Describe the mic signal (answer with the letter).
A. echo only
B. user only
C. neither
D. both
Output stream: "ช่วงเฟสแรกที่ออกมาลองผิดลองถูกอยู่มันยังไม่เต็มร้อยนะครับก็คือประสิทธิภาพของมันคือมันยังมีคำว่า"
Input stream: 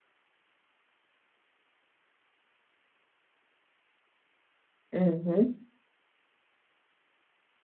B